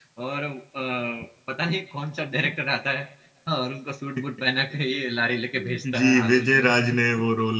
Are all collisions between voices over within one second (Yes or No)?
No